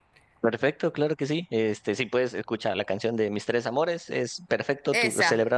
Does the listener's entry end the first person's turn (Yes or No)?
No